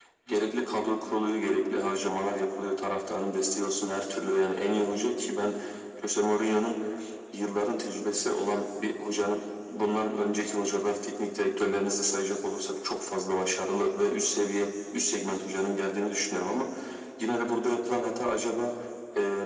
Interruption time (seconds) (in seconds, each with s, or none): none